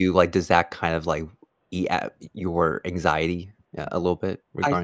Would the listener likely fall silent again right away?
No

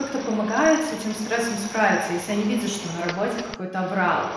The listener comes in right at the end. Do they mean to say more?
No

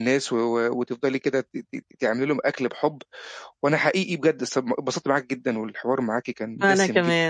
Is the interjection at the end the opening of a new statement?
No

